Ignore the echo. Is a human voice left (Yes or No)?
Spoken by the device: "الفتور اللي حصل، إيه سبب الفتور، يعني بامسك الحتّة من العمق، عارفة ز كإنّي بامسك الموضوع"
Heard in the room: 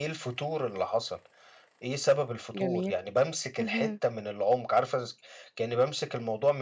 Yes